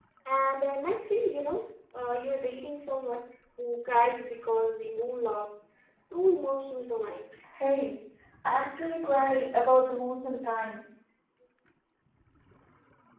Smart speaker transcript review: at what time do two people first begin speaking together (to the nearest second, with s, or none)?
none